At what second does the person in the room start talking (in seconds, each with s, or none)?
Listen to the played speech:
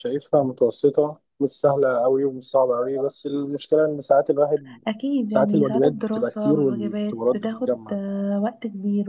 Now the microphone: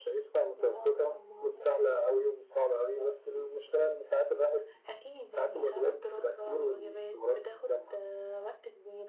0.6 s